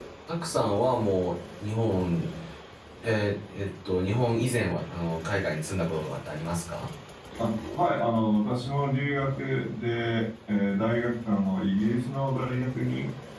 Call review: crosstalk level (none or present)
none